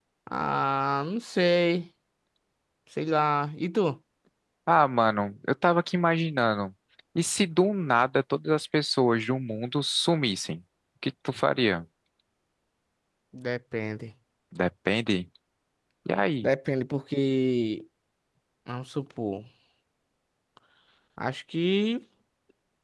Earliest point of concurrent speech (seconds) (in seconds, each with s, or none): none